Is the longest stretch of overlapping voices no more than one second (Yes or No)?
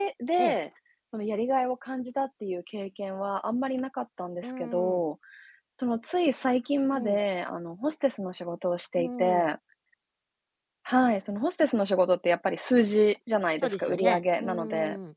No